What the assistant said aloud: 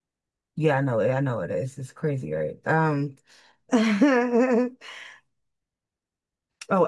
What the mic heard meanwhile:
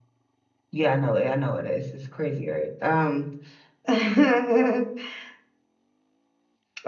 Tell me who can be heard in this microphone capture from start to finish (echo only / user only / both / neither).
echo only